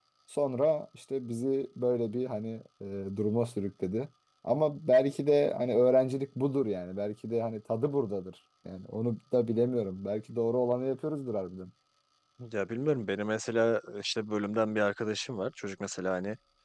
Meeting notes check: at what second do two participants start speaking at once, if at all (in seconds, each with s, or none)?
none